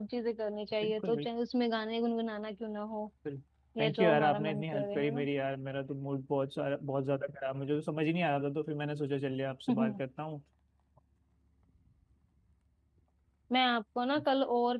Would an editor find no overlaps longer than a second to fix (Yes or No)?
No